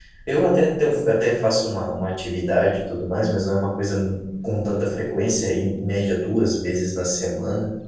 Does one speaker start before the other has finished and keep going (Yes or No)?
No